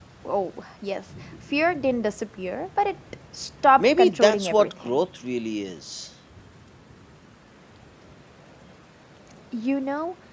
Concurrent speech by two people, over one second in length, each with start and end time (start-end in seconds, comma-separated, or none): 3.8-5.0